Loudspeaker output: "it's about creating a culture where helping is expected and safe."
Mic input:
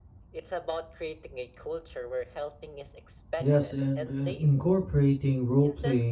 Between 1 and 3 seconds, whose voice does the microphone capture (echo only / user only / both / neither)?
echo only